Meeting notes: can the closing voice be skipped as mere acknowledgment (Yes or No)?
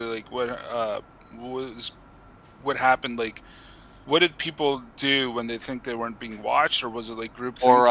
No